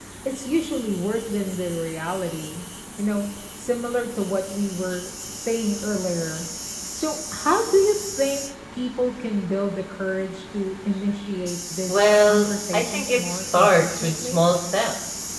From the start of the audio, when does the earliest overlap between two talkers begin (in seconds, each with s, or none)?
11.9 s